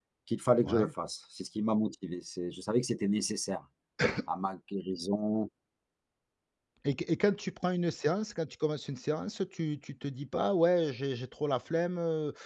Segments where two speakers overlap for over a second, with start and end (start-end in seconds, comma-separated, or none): none